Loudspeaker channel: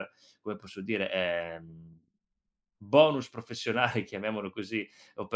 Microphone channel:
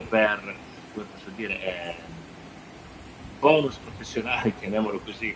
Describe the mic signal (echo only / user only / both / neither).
echo only